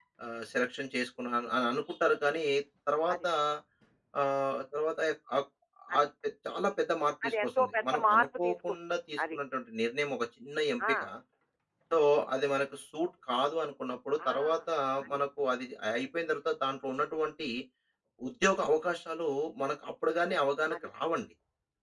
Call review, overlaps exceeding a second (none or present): present